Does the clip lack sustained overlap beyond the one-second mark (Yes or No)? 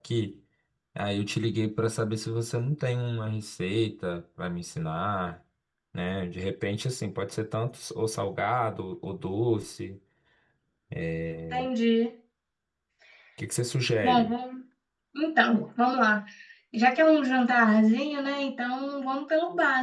Yes